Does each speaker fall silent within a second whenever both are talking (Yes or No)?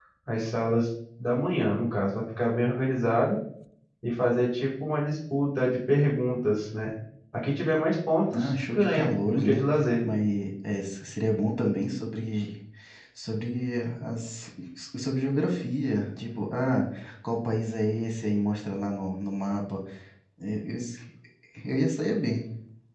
No